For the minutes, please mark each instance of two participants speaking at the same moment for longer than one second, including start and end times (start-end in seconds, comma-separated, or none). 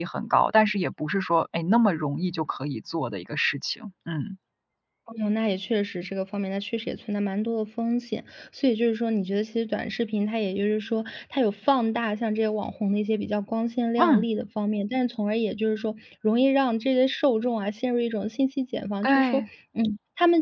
none